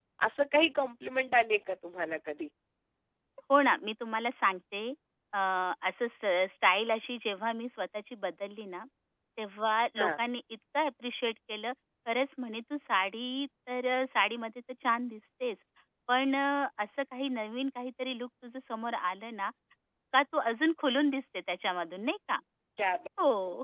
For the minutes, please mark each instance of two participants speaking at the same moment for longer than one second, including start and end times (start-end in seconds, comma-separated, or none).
none